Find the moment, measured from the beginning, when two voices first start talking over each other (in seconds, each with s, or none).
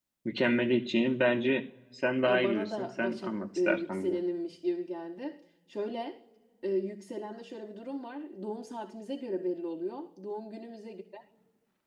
2.3 s